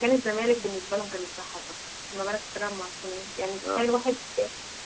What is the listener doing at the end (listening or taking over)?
listening